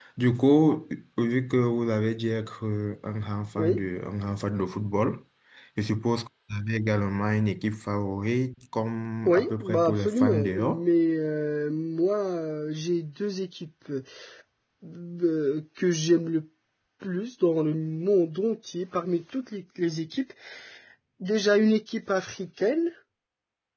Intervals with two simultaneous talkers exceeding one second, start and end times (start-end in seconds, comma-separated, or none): 9.2-10.8